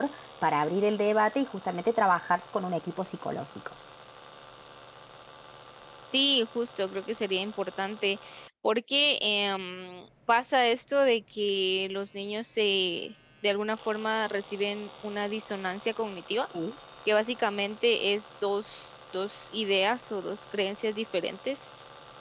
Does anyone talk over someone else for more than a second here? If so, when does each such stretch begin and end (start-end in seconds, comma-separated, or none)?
none